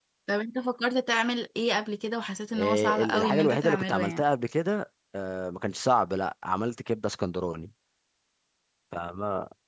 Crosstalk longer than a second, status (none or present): present